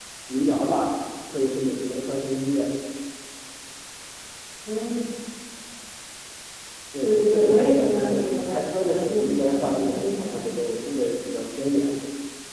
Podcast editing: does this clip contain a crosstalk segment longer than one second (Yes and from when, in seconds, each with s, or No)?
Yes, from 7.0 s